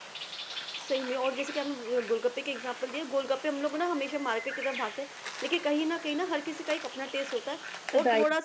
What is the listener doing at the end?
listening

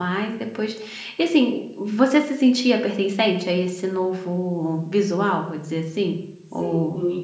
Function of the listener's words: taking over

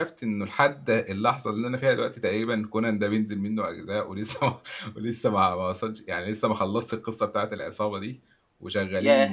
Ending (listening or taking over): taking over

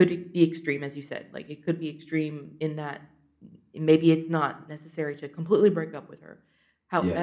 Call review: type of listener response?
listening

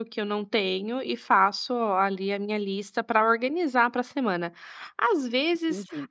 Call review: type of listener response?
listening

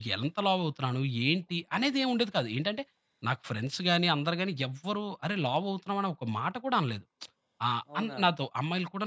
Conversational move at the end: listening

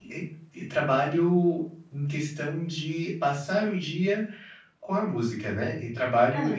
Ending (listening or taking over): listening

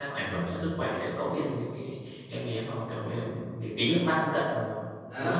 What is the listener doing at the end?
taking over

